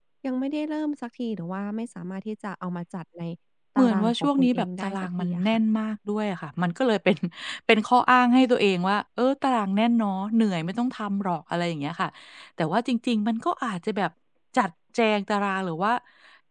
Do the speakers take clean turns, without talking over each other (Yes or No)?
No